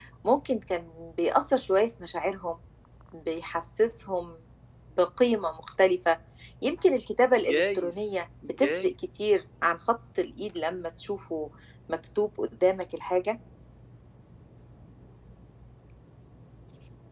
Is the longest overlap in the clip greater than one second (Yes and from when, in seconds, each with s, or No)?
Yes, from 7.5 s